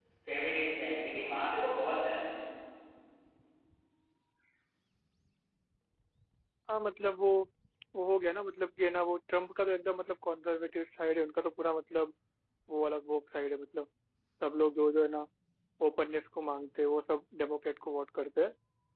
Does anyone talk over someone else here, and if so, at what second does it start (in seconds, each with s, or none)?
none